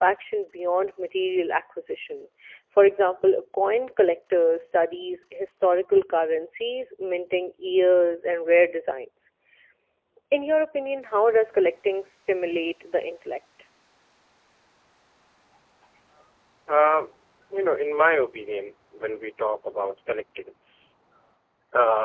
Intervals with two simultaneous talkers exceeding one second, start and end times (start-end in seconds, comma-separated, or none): none